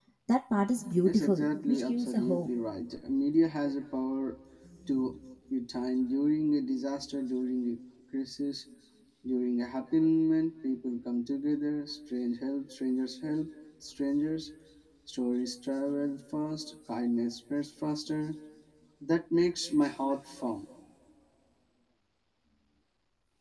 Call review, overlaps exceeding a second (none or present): present